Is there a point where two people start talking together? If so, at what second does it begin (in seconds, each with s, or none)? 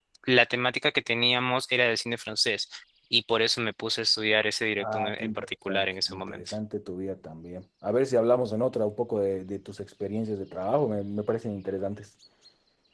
4.8 s